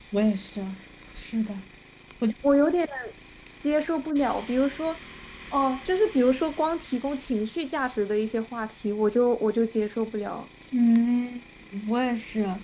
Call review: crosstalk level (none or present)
none